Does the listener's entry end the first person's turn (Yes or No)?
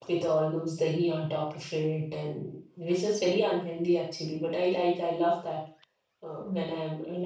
No